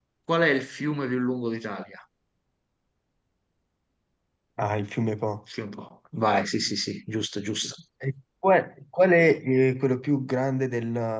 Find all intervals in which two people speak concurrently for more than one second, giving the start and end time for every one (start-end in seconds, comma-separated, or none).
none